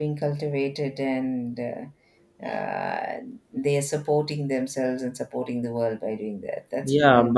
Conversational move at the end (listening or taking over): taking over